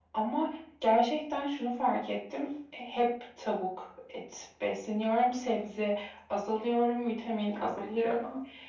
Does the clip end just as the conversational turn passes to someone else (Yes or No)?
Yes